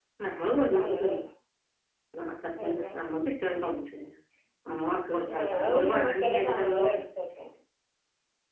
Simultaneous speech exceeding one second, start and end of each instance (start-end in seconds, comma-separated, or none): 5.4-7.0